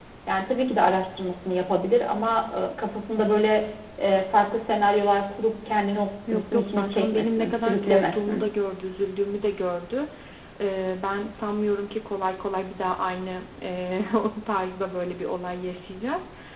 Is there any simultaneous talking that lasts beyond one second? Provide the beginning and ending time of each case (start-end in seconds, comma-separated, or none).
6.3-8.4